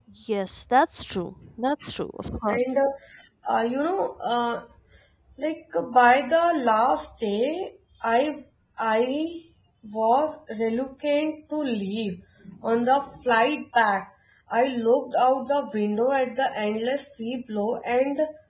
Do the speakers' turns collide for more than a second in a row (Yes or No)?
No